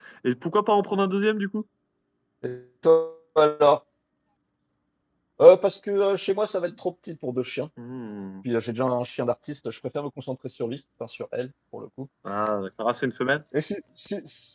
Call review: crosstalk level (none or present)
none